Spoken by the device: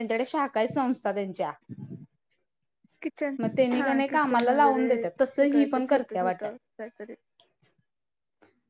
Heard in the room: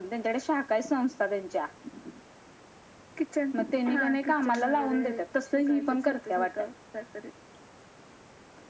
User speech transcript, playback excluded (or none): none